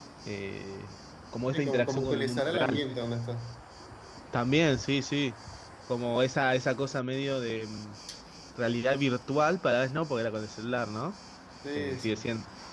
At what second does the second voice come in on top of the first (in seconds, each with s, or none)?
1.5 s